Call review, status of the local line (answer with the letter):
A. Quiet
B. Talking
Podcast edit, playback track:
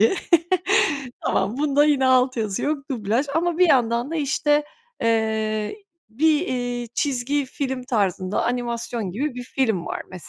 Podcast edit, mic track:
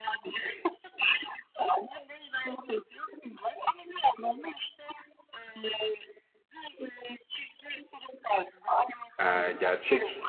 B